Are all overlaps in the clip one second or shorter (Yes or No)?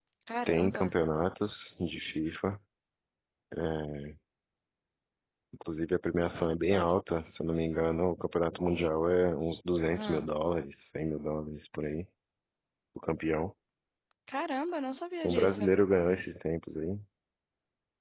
Yes